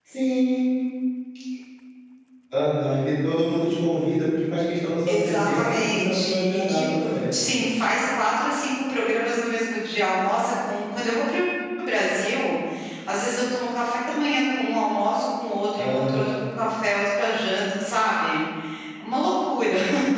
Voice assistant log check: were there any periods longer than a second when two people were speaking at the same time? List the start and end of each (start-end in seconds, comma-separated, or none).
5.1-7.2